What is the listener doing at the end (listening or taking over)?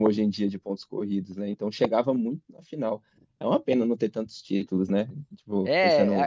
taking over